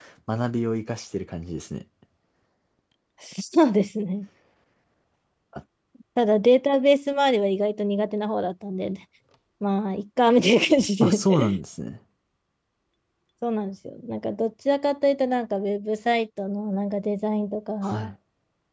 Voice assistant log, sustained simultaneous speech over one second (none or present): none